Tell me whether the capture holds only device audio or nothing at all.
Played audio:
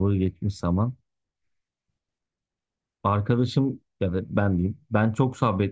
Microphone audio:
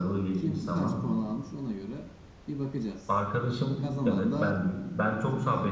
No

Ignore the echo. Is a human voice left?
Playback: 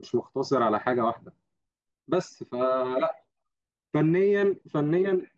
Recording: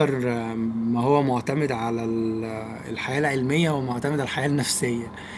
Yes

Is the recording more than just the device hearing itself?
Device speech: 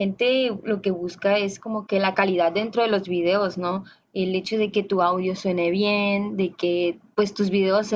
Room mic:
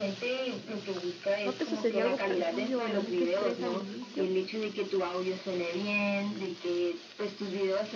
Yes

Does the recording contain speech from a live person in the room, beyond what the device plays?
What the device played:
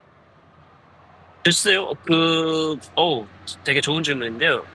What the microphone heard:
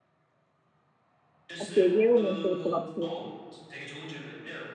Yes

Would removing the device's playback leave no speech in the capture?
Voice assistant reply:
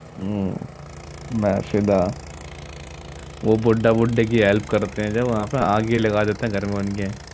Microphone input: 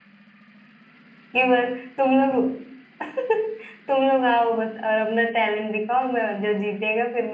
No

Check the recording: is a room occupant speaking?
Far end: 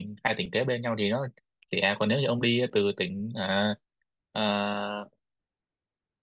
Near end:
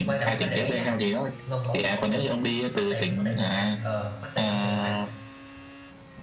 Yes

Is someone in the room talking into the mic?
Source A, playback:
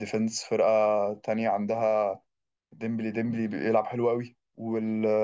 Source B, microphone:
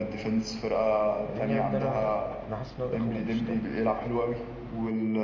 Yes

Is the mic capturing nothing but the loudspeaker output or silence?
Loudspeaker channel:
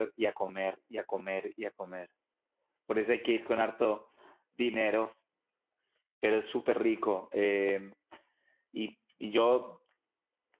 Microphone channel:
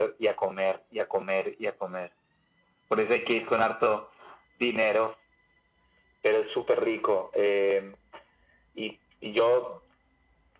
Yes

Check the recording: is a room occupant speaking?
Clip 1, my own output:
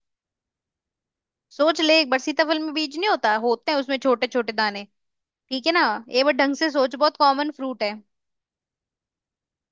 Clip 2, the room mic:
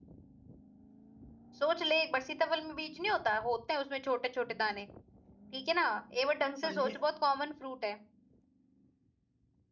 Yes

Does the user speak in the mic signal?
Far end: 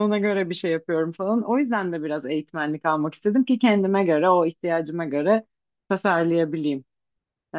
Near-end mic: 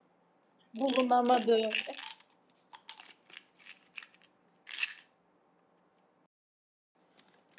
Yes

